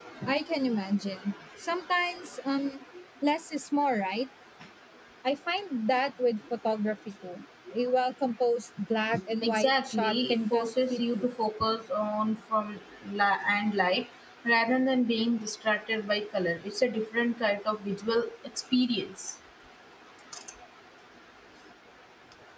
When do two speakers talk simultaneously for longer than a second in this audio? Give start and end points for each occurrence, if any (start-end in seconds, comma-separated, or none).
9.4-11.3